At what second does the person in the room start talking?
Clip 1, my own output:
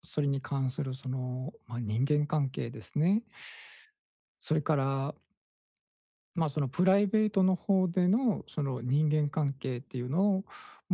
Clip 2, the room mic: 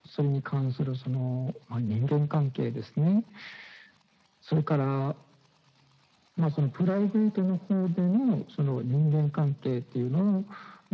none

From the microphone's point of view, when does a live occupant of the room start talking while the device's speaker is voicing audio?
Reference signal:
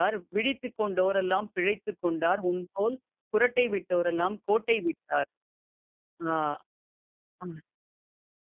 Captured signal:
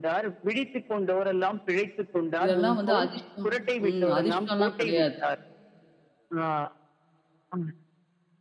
2.4 s

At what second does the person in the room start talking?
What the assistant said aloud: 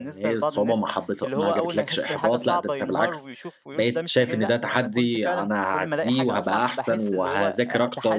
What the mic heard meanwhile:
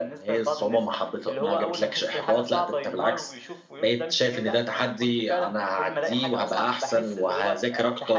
none

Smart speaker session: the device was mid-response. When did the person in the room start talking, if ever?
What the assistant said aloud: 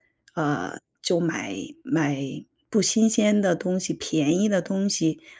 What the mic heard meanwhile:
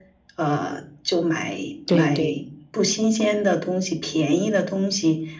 1.9 s

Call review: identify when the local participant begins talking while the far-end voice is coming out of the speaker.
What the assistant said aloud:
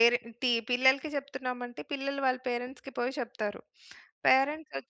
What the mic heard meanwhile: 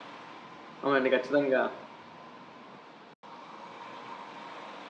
0.8 s

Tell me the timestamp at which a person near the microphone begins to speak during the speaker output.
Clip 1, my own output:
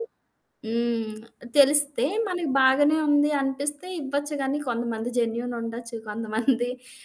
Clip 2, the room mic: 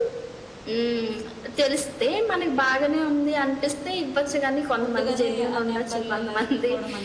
4.8 s

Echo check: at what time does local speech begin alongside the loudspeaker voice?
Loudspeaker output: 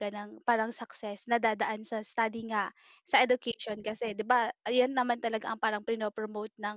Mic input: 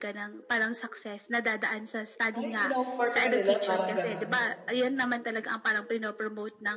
2.4 s

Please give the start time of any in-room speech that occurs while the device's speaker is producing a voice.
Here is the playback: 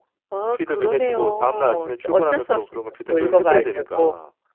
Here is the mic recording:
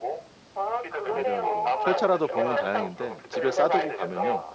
1.0 s

